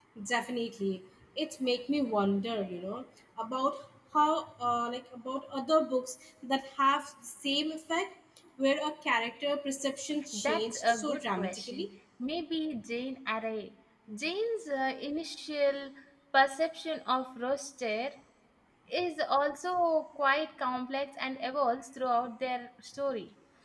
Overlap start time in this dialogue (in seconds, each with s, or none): 10.3 s